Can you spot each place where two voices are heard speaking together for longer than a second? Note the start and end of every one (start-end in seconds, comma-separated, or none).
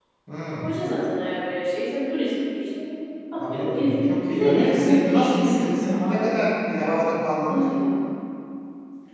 3.4-6.4